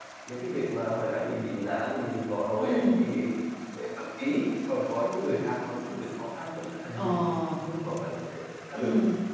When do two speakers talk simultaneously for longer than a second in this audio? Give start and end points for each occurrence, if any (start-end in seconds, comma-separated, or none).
none